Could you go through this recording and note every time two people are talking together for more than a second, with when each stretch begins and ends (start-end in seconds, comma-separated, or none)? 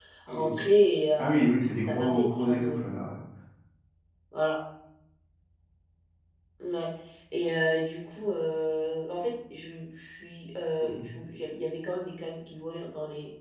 1.2-2.8